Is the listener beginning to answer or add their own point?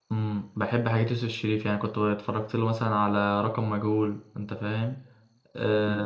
No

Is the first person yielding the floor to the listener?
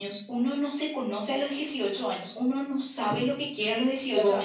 No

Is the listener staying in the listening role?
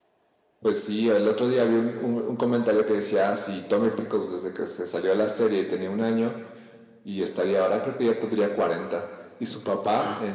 Yes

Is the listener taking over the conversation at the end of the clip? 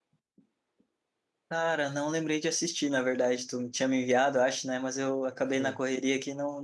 No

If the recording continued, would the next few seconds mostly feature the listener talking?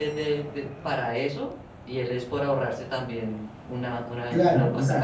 Yes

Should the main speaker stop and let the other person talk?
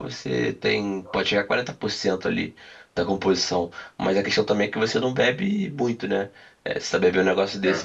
No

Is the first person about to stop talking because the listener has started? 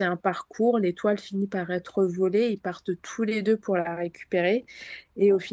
No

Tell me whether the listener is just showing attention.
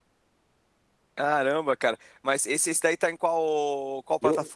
No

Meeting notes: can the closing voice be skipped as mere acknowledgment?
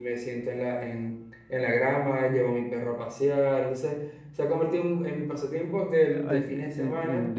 No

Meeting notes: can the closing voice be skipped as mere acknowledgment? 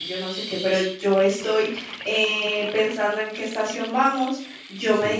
Yes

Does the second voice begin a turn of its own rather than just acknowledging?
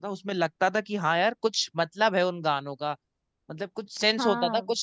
No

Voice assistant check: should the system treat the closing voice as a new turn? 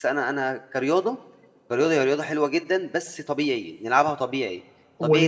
No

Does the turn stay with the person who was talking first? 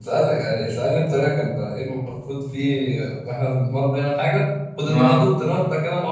Yes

